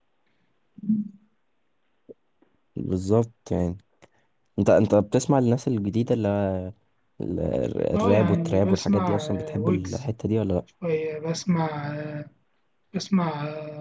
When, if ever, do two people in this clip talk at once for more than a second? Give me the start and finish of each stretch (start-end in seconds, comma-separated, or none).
8.0-10.0